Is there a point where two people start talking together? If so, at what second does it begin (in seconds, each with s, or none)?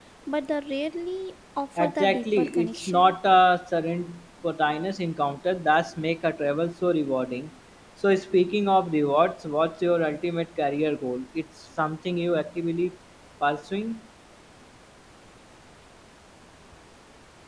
1.8 s